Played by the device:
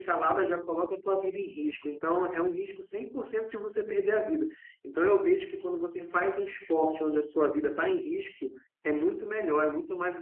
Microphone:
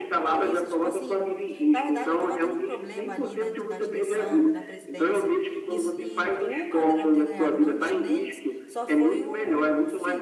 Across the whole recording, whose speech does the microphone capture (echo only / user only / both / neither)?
both